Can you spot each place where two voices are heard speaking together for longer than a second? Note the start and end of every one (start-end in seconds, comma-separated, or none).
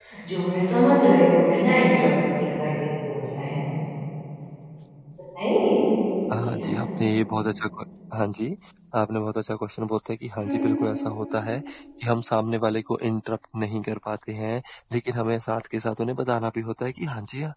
none